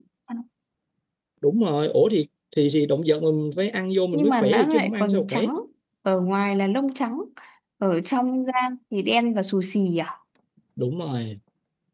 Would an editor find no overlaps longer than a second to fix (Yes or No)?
No